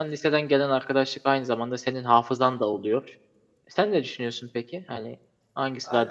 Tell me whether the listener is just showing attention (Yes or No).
No